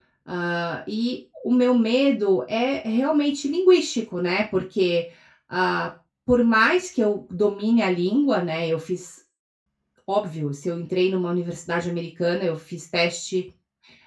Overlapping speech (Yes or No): No